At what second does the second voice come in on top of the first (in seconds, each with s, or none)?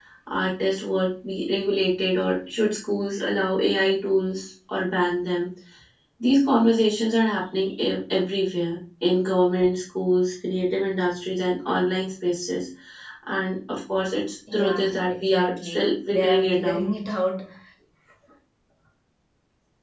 14.5 s